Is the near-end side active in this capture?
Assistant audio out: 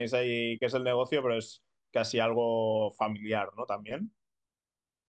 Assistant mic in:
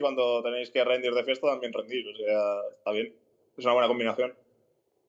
Yes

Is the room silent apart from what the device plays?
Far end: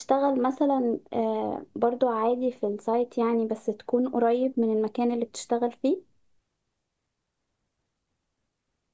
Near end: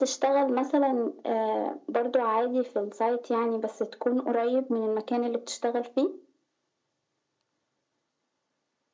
Yes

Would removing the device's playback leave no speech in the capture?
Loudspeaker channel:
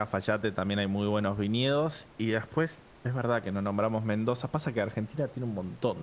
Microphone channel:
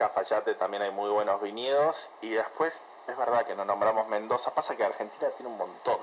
Yes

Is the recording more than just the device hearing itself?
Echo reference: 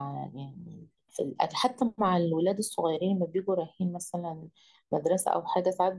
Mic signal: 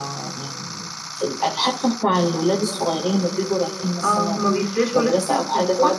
Yes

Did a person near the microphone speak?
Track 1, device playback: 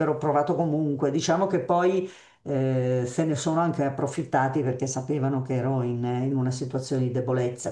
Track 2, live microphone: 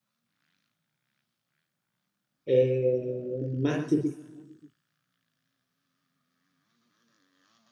Yes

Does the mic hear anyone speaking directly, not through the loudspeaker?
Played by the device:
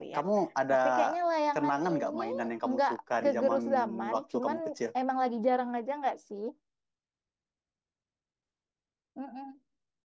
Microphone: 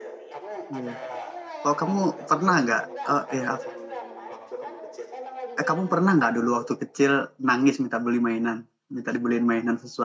Yes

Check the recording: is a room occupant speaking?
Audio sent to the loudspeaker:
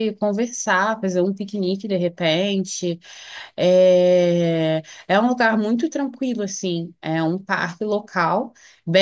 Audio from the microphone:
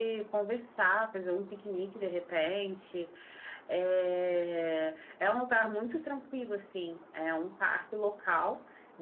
No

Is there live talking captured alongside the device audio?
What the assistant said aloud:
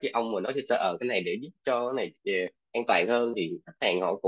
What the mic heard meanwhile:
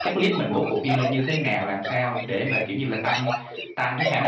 Yes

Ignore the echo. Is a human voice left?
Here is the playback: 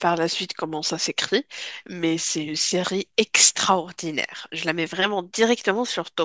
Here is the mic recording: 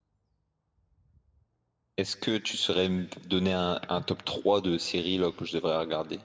Yes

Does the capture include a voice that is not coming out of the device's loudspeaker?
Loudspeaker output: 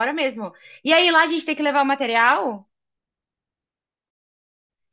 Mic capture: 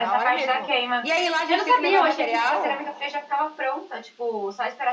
Yes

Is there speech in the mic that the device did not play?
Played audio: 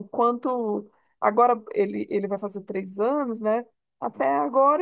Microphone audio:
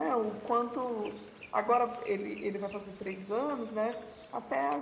No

